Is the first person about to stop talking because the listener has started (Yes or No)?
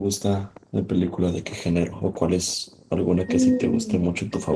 Yes